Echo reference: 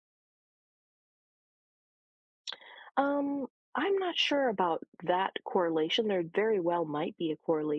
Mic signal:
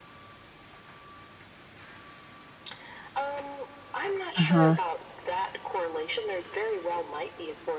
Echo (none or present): present